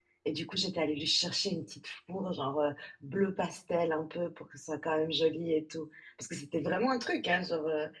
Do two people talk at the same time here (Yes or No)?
No